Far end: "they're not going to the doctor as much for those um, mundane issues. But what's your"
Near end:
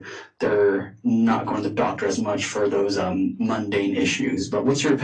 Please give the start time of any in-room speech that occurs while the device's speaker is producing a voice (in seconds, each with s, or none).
none